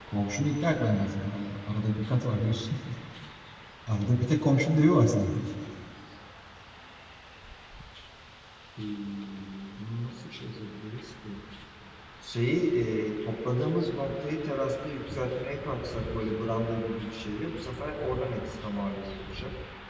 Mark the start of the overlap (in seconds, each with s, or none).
none